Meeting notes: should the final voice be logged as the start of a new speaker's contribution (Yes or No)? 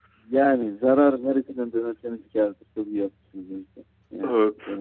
Yes